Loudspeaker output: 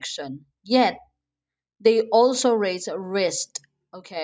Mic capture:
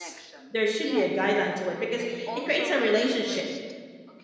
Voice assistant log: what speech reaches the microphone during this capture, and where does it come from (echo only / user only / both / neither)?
both